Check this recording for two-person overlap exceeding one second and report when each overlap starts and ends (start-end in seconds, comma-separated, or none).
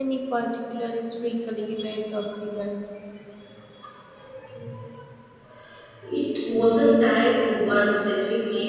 none